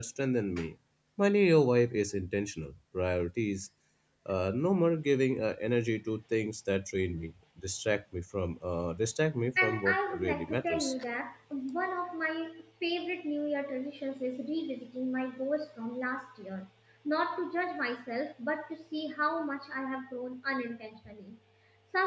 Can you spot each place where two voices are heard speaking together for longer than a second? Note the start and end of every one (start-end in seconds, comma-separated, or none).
9.6-10.9